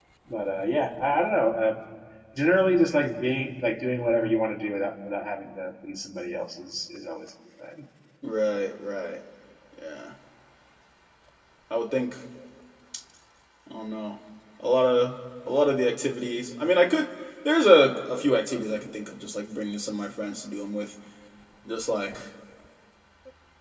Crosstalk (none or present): none